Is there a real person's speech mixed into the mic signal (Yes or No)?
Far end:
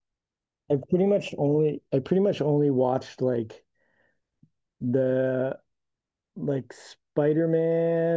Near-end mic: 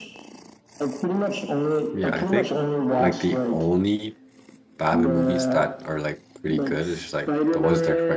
Yes